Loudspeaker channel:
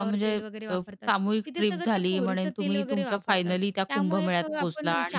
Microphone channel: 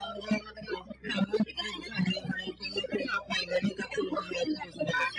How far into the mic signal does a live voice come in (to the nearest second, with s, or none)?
none